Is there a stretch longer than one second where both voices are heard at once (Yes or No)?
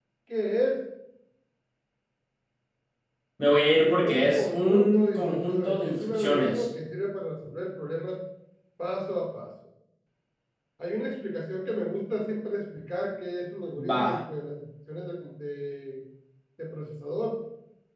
Yes